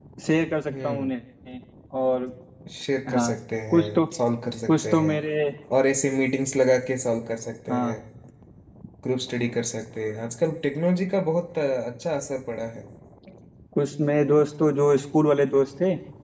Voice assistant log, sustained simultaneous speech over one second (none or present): none